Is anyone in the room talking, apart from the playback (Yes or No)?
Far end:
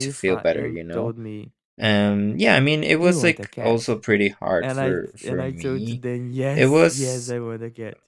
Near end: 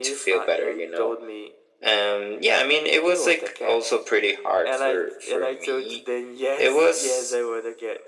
No